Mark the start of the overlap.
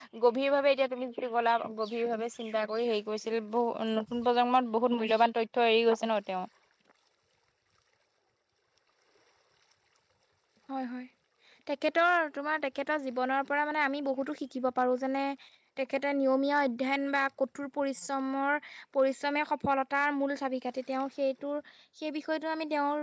none

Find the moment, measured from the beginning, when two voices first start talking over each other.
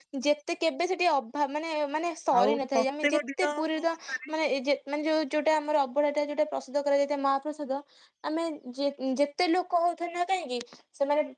2.3 s

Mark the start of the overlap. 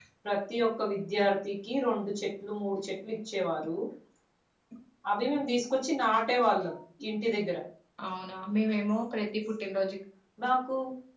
none

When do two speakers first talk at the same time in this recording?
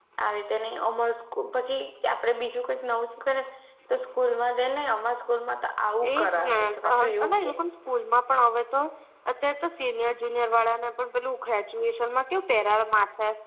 6.0 s

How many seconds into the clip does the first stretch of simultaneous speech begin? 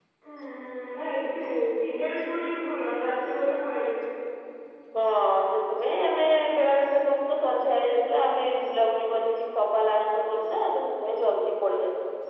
none

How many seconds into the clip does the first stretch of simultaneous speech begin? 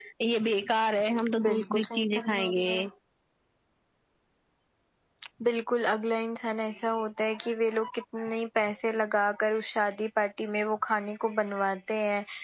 1.4 s

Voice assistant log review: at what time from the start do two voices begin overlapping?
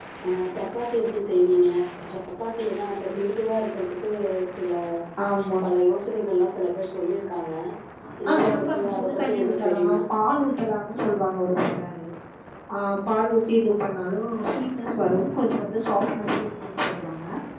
8.3 s

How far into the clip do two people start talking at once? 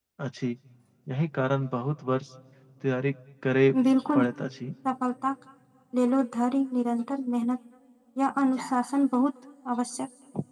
none

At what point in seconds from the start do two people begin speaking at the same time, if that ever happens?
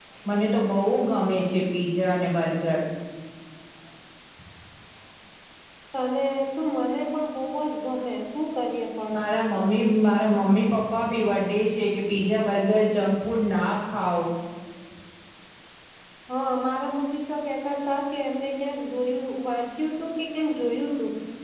none

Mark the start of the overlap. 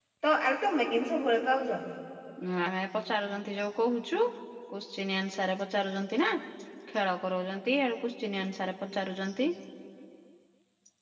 none

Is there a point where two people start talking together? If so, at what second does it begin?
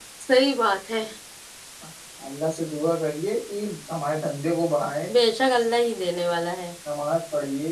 none

